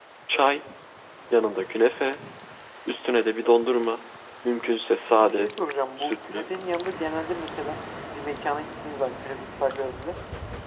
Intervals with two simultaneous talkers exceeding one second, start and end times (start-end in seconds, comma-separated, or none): none